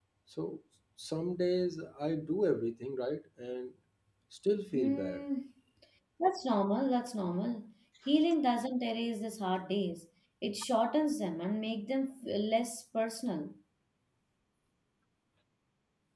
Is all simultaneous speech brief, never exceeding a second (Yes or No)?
Yes